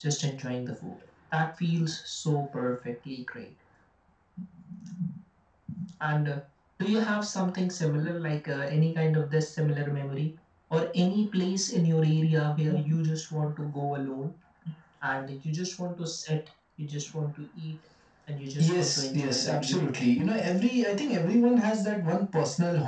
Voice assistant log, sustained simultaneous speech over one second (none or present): present